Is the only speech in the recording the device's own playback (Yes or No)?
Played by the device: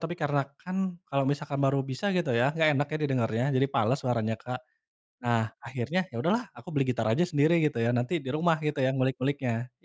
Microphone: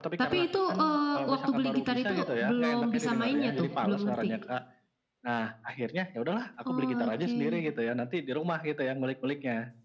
No